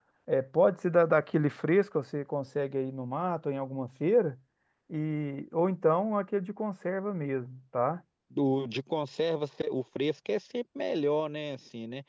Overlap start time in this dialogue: none

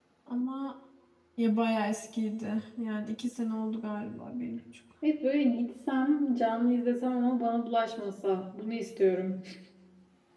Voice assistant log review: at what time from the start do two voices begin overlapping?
none

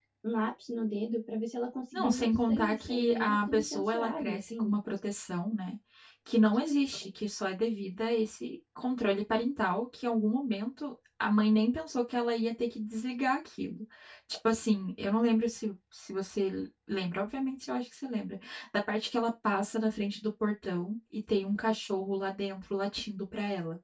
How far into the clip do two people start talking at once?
1.9 s

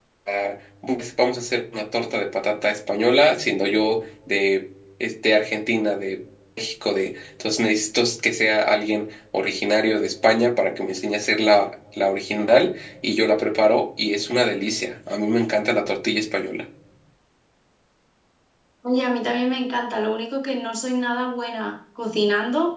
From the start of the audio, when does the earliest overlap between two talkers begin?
none

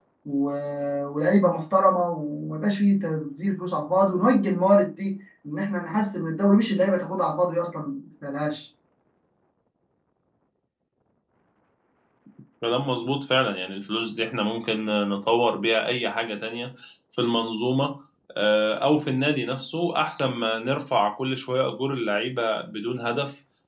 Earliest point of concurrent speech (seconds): none

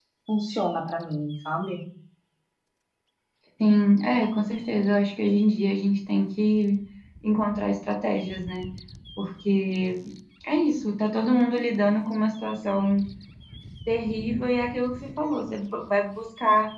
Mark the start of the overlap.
none

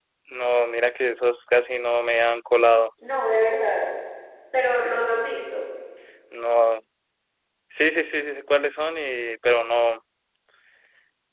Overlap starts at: none

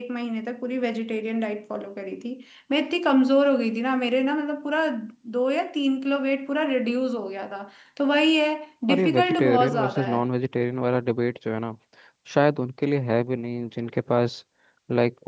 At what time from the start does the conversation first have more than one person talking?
8.9 s

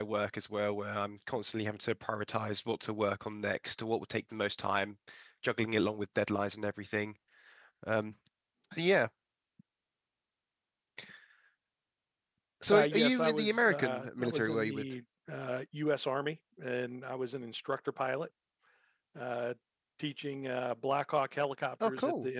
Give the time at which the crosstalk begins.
12.7 s

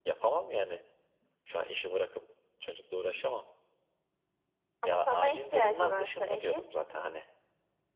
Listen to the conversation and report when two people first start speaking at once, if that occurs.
4.8 s

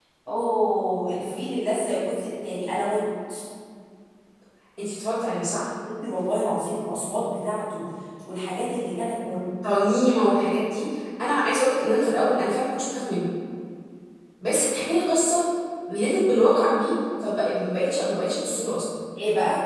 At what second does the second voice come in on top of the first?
none

